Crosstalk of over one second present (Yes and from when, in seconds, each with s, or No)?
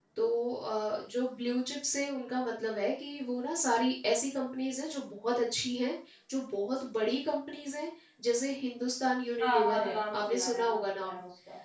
Yes, from 9.4 s